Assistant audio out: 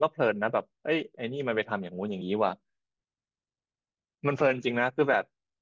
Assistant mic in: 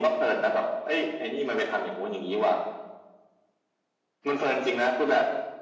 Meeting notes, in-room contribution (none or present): none